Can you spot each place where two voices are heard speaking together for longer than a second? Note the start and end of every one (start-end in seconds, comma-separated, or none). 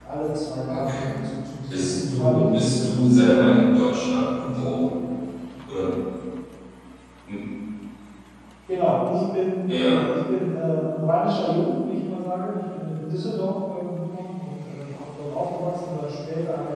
1.7-3.3